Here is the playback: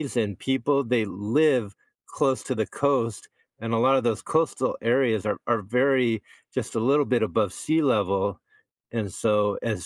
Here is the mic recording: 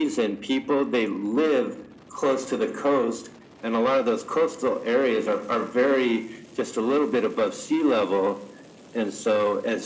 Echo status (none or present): present